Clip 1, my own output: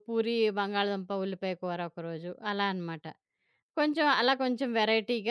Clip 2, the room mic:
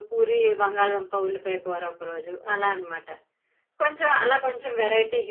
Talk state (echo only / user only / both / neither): echo only